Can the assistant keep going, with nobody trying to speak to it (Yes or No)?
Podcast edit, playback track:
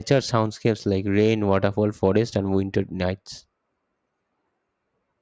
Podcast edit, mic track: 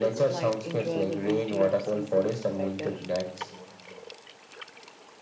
No